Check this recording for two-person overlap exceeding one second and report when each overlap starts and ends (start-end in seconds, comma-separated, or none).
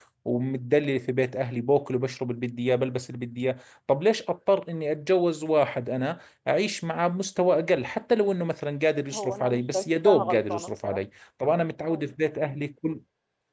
9.1-11.0